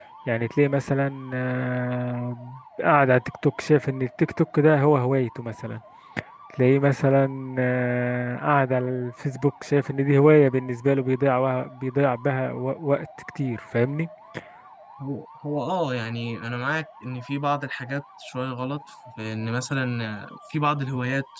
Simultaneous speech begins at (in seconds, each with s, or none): none